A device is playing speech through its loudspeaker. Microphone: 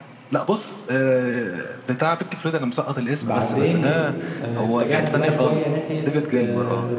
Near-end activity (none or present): present